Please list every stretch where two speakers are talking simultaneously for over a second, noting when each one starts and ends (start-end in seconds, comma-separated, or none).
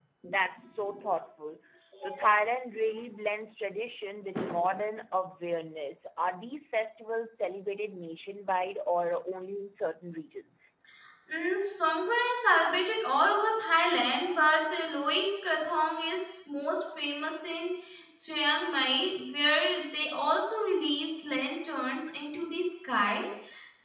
none